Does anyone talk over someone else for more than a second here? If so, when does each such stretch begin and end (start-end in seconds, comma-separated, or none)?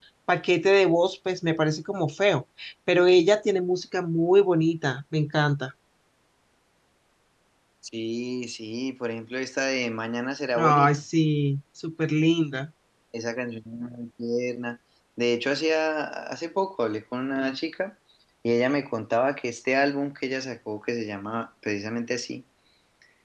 none